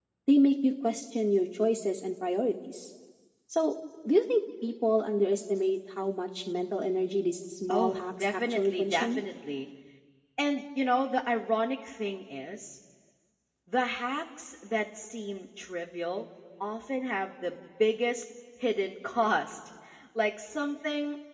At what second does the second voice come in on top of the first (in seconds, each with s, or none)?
7.7 s